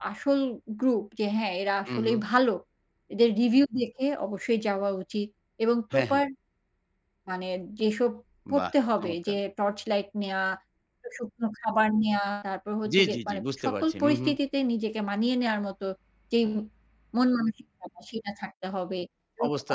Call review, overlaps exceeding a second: present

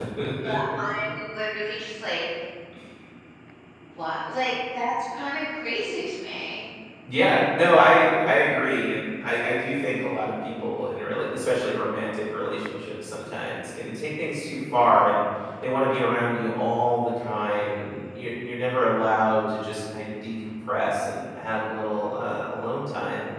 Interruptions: none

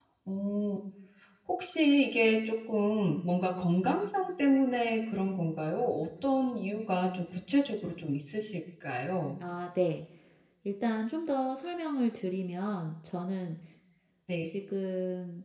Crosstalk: none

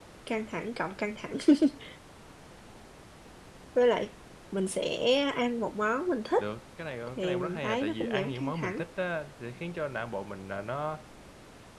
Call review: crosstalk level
present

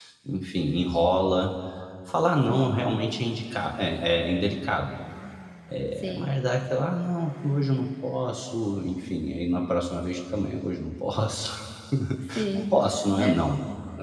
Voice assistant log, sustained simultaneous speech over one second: none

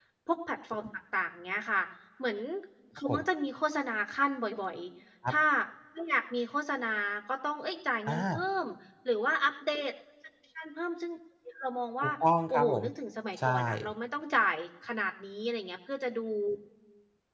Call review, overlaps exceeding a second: none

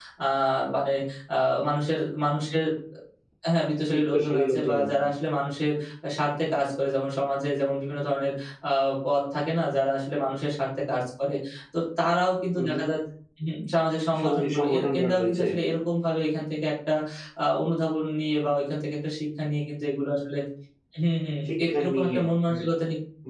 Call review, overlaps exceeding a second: present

